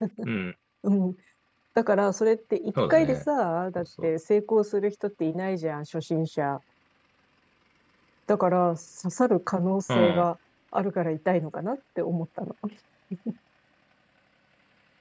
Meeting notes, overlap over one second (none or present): none